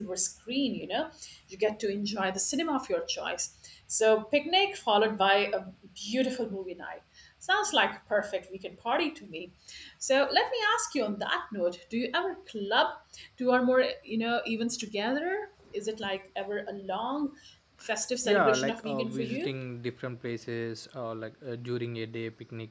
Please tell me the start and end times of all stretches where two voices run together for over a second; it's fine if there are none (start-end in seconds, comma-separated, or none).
18.2-19.6